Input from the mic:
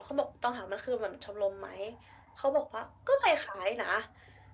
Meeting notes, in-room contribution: none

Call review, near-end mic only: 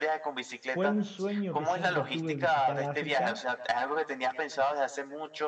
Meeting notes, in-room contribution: present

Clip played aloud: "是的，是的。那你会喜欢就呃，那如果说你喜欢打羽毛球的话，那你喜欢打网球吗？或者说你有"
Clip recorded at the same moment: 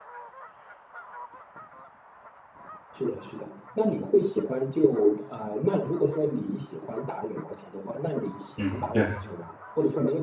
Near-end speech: present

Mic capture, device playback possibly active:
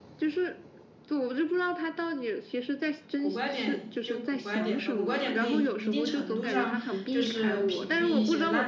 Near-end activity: present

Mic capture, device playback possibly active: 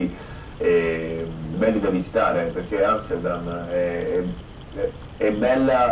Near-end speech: none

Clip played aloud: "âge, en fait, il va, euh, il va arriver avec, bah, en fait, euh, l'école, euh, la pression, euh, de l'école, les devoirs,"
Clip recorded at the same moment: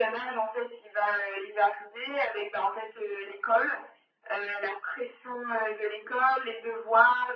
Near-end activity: none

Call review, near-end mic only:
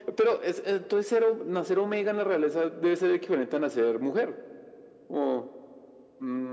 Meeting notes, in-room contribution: none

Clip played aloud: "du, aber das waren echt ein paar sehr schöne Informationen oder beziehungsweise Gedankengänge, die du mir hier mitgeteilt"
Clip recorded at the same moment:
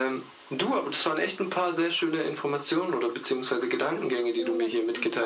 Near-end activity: present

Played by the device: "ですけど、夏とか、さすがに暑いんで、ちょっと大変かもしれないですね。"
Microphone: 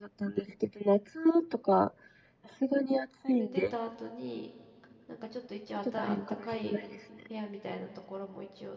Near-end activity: present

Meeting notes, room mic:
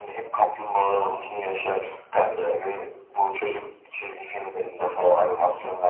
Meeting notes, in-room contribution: none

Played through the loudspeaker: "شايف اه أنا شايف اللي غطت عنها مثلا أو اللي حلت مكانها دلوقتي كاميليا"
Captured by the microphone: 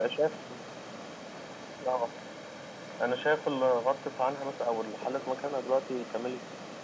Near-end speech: none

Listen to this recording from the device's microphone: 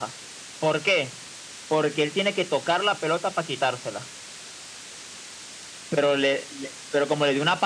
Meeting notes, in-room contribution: none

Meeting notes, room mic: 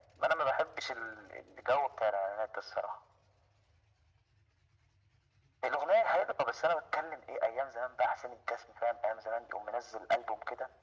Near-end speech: none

